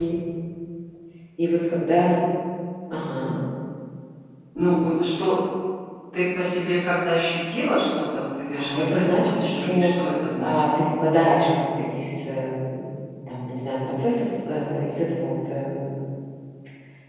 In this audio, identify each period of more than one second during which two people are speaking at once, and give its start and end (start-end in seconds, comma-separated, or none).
8.5-9.9